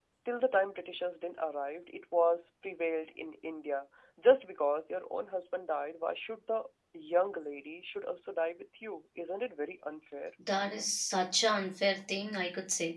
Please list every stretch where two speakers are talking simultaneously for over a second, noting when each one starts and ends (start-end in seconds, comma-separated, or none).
none